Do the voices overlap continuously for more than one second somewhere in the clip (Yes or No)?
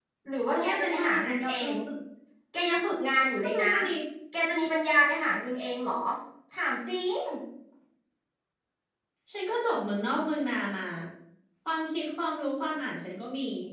Yes